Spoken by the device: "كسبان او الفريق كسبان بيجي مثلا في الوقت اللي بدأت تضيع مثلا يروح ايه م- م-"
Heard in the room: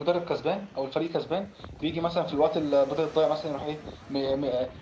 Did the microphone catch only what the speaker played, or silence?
Yes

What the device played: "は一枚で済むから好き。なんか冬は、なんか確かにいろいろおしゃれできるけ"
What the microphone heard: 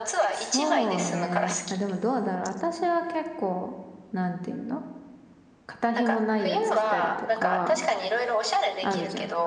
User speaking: Yes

